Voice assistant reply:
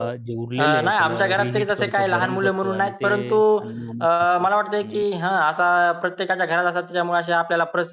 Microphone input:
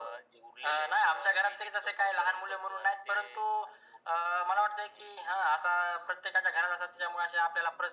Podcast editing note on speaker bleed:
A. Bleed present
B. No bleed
A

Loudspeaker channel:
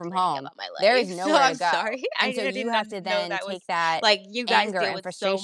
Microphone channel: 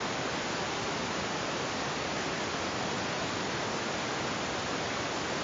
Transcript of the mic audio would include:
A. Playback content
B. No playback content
B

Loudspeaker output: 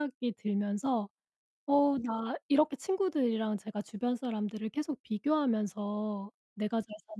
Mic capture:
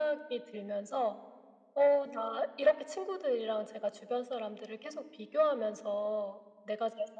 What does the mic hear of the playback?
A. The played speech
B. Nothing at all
A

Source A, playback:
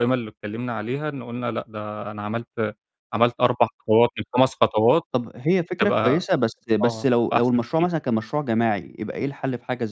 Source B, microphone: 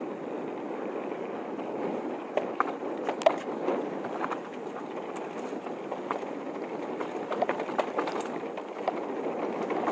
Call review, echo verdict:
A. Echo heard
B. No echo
B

